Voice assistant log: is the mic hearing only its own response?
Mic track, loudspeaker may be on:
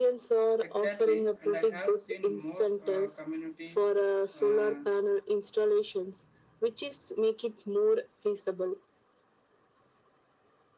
No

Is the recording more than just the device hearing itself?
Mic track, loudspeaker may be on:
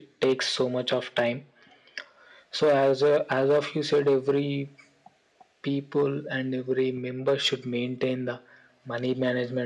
No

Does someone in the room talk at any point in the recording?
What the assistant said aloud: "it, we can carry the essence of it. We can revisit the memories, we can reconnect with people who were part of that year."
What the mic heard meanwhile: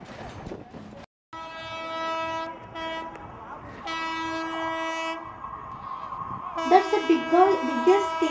Yes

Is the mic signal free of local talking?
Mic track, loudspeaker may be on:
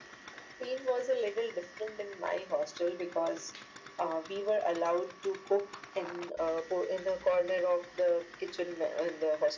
Yes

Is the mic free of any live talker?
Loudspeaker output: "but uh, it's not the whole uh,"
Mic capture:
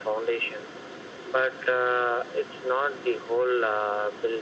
Yes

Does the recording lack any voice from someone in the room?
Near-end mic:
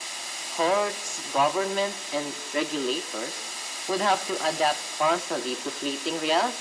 Yes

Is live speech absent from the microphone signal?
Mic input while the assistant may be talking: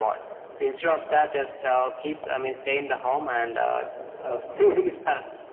Yes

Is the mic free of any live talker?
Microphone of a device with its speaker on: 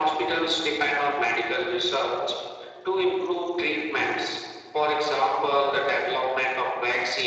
Yes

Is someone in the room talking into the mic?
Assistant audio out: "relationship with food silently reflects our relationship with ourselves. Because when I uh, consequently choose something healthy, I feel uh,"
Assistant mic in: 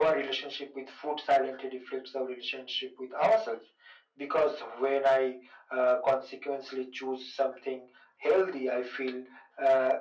No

